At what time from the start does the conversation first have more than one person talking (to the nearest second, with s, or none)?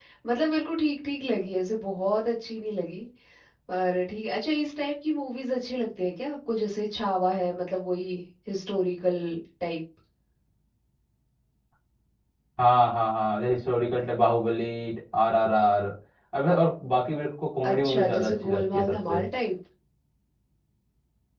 18 s